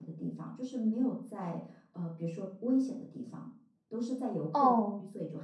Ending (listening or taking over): taking over